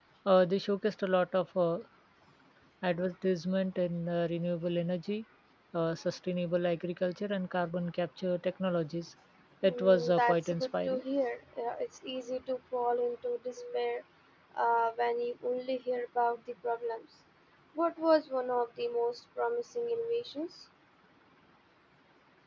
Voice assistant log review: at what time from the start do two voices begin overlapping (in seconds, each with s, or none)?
9.6 s